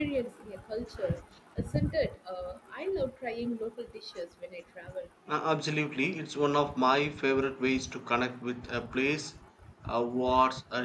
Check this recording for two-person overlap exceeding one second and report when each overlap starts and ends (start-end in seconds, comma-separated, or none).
none